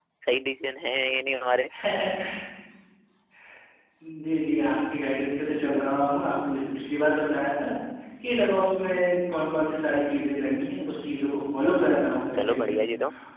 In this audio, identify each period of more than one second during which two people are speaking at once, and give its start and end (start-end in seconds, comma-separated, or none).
none